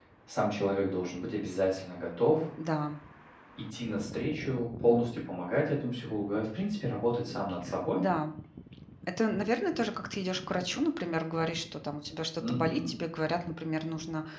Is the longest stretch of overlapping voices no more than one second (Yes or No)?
Yes